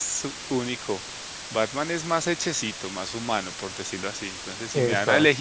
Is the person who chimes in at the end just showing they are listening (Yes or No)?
Yes